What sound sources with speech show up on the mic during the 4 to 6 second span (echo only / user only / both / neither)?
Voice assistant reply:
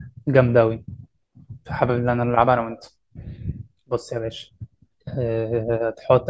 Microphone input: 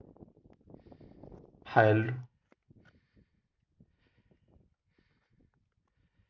neither